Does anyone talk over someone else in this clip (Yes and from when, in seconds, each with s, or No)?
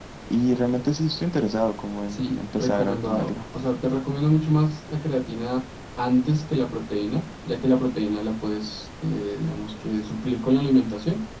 Yes, from 2.1 s